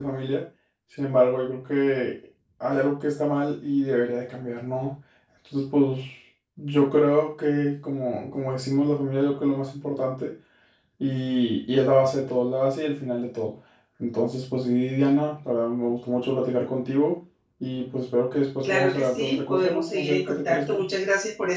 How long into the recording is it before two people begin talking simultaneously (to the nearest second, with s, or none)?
19 s